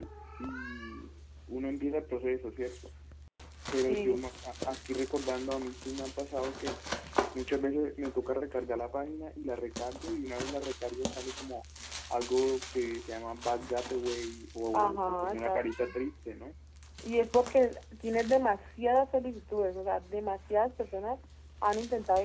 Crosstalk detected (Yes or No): Yes